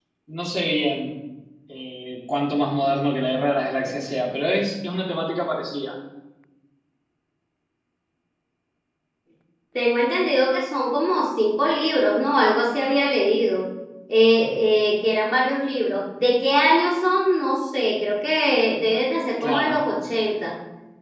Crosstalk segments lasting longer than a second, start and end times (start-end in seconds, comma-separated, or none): none